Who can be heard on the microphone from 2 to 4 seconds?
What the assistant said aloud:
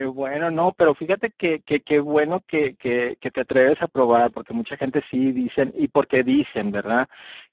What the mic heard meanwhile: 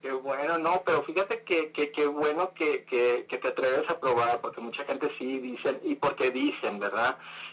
echo only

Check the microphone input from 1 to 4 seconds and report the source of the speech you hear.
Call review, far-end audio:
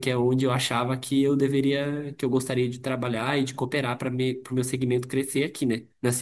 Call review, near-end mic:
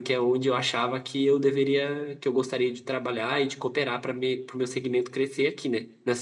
echo only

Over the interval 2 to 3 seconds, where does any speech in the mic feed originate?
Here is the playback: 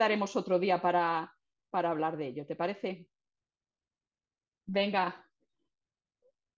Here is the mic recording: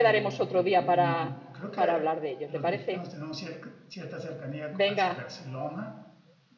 both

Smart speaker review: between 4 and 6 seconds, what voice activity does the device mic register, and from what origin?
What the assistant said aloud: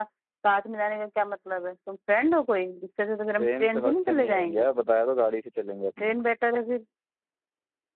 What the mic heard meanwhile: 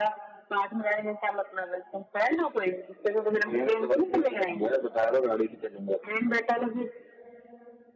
echo only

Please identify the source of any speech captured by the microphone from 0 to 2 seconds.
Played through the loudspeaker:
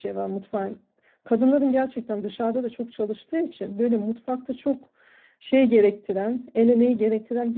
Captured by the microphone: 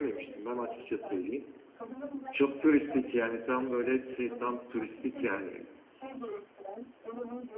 both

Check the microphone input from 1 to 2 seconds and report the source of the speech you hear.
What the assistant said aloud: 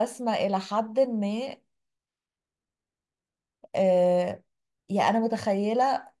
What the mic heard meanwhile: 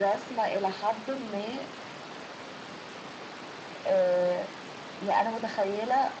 echo only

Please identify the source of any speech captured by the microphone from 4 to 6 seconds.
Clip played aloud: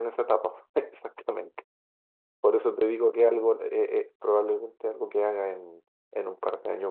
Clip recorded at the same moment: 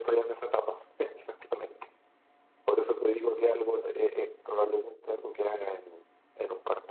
echo only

